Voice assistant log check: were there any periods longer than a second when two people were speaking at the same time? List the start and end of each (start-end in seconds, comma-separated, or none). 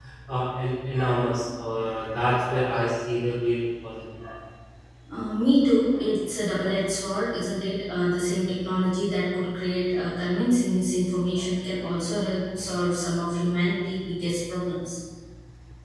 none